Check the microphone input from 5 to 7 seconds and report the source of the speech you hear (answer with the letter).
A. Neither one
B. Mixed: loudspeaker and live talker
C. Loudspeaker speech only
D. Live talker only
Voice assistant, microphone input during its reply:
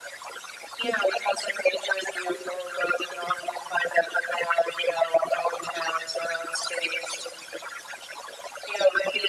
C